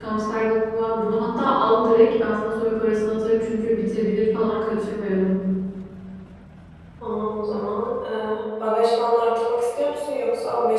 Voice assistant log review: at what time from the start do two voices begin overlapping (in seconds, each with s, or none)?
none